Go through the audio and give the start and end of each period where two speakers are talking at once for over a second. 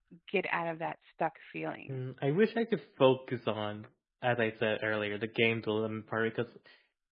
none

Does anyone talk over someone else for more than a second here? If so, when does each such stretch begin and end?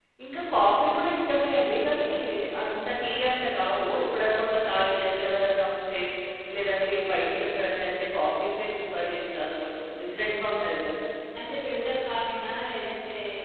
none

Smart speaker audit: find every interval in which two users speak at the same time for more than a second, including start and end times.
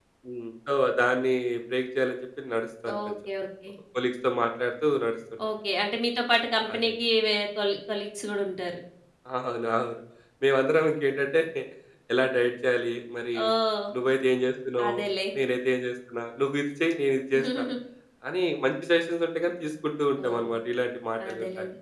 none

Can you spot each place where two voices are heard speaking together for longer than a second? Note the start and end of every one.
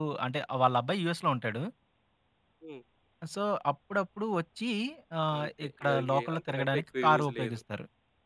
5.4-7.6

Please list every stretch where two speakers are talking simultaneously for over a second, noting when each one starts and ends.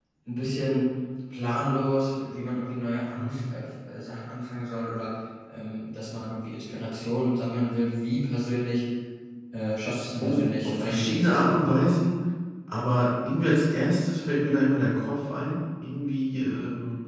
10.2-11.6

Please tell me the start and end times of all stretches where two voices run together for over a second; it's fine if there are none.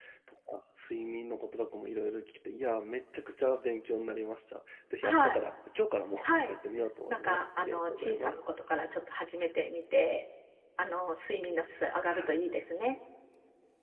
7.1-8.4

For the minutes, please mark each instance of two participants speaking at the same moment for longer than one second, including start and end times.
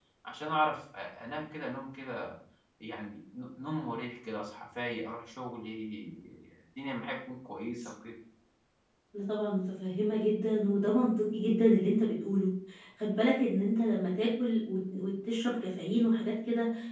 none

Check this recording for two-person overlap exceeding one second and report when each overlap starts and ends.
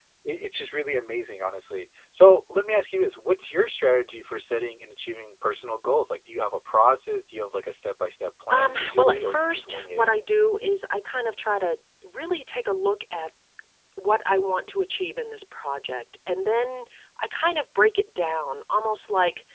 8.5-10.1

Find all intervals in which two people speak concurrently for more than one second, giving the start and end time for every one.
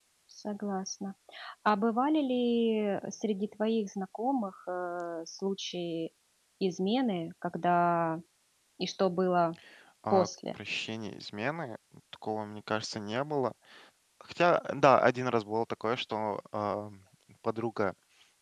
none

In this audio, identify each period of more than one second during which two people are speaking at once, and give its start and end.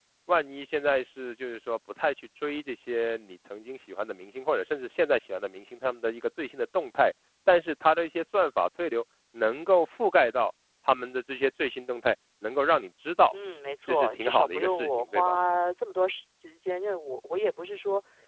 13.9-15.4

